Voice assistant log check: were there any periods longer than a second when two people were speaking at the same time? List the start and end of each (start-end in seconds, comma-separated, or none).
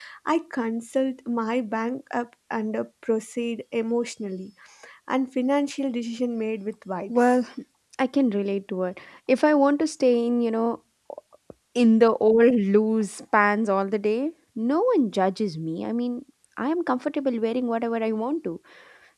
none